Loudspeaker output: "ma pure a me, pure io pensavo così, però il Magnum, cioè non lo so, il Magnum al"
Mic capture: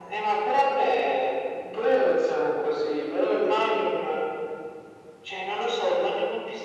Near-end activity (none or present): none